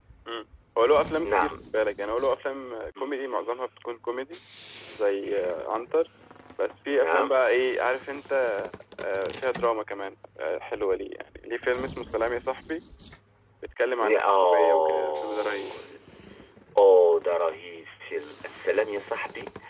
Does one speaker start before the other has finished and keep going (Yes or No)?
Yes